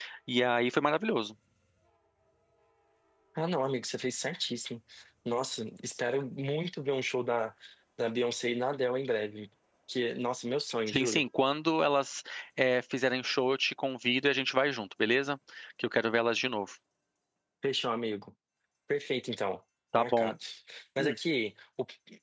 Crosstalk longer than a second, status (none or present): none